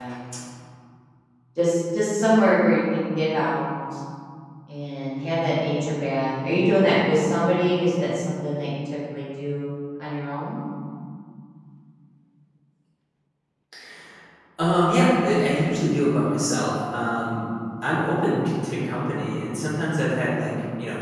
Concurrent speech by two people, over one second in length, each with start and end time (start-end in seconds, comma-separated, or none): none